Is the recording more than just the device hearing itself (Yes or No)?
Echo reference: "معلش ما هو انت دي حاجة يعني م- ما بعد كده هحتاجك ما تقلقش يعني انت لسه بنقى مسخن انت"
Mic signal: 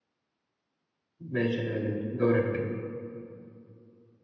Yes